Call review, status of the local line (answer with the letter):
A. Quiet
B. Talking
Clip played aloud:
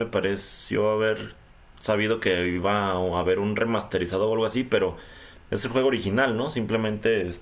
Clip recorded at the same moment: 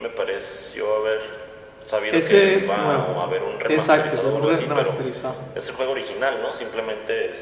B